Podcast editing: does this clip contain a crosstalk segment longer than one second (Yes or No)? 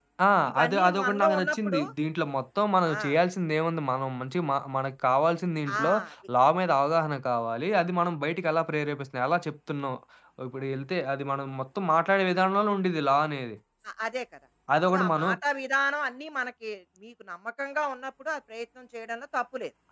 Yes